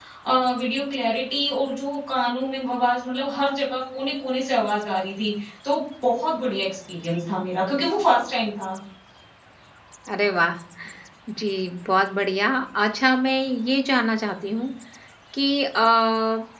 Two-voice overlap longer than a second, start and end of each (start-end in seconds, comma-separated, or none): none